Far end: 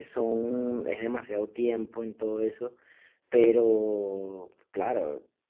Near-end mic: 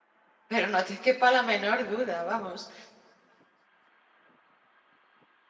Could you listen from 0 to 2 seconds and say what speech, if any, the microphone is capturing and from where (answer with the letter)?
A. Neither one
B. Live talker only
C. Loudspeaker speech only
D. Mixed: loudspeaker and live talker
B